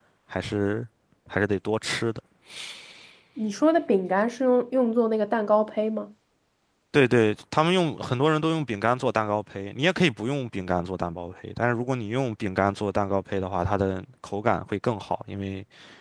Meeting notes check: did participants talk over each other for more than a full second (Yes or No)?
No